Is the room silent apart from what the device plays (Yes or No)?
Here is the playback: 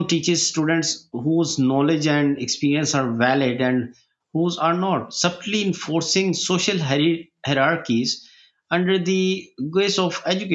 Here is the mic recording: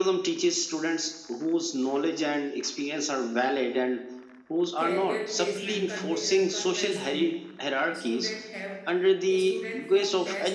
No